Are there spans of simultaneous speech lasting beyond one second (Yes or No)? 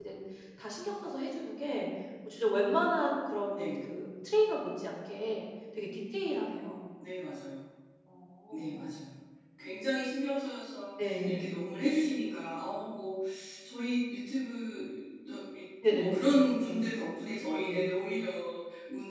No